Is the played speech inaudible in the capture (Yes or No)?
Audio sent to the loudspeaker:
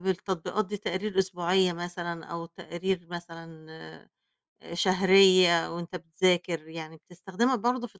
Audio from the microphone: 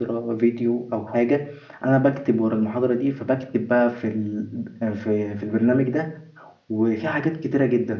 Yes